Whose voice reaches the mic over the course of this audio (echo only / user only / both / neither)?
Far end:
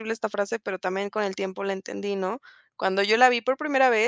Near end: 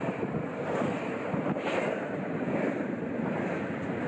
neither